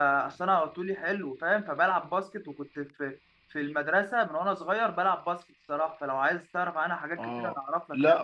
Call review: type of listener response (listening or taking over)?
taking over